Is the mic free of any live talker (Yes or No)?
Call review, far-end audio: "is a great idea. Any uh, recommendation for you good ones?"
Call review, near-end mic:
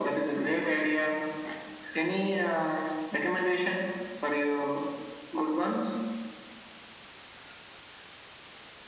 Yes